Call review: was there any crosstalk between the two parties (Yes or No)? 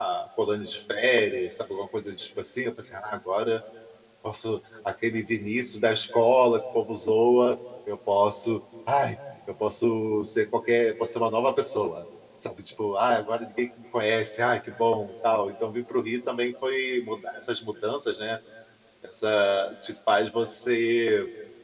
No